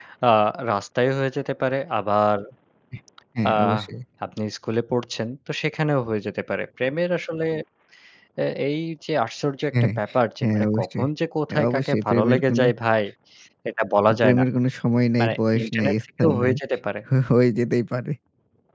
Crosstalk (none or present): present